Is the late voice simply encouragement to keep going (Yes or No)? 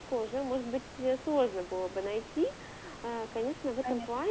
Yes